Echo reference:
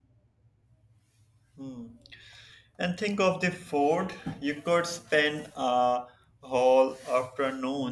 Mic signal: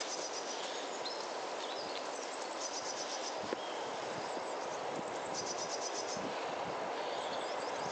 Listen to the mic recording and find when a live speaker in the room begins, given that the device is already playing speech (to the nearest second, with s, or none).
none